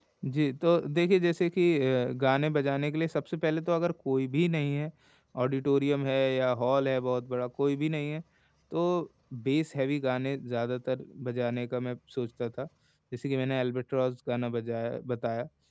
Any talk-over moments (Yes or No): No